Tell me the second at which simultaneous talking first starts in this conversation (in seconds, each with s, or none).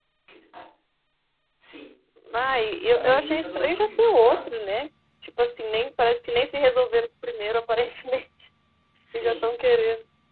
2.9 s